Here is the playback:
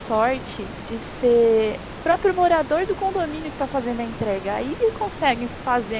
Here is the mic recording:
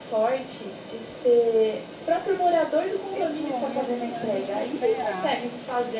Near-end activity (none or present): present